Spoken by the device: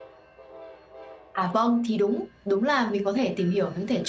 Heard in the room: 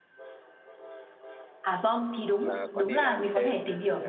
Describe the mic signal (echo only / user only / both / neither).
both